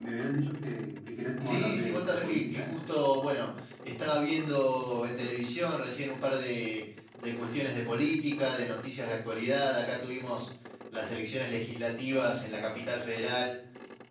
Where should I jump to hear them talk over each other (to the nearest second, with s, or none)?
1 s